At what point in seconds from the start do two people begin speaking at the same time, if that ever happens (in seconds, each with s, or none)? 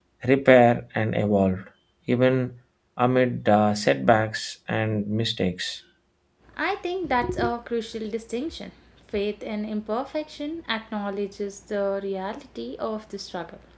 none